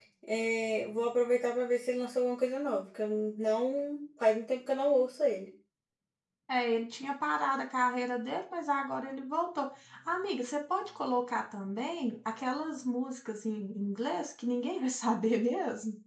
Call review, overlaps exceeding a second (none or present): none